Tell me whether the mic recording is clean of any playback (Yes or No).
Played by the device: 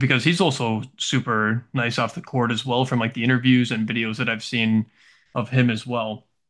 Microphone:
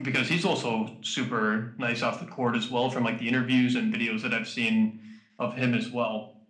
No